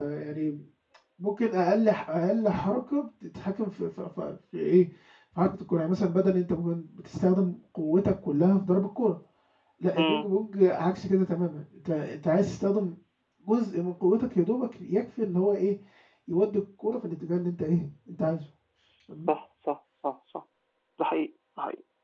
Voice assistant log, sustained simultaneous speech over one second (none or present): none